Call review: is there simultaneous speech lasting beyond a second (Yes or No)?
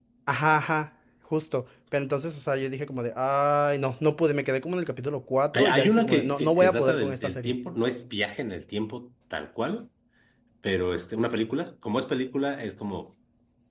Yes